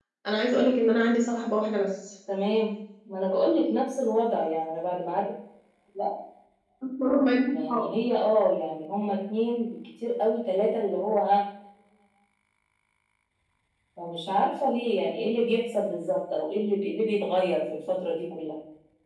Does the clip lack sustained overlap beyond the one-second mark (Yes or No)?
Yes